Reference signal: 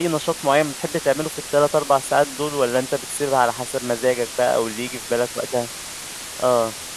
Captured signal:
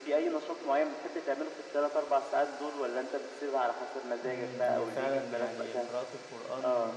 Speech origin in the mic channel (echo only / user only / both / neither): both